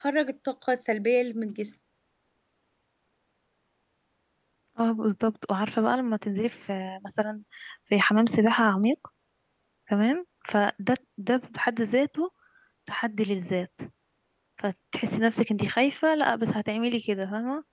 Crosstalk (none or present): none